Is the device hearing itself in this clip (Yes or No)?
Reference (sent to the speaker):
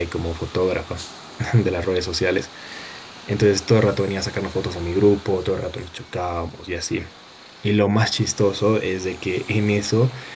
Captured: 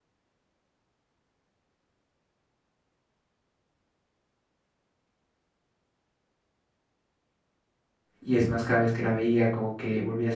No